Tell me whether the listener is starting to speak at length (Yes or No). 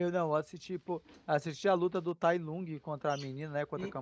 Yes